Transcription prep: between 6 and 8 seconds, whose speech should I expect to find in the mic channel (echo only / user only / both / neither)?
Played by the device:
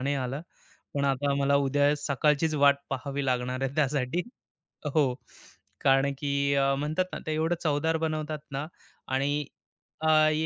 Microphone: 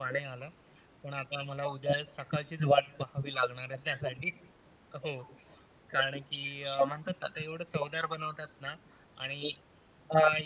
echo only